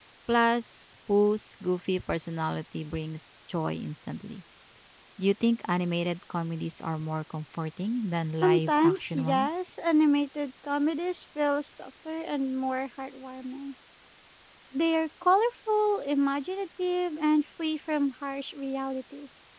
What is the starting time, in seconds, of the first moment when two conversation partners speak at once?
8.4 s

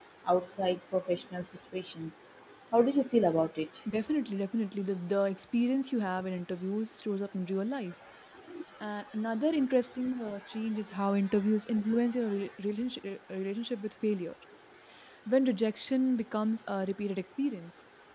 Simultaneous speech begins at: none

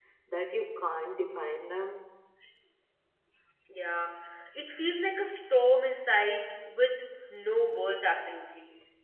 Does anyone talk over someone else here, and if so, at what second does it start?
none

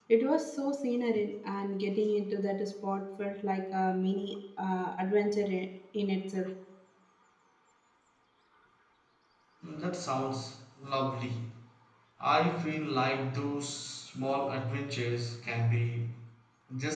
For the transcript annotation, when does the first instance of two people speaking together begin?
none

